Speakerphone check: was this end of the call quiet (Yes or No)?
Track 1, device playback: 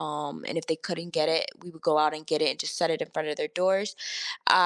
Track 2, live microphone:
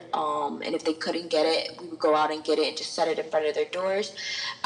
Yes